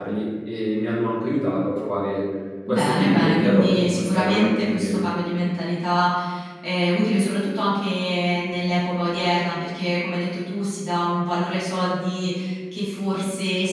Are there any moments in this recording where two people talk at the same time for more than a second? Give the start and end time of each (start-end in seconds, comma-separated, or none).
2.7-5.0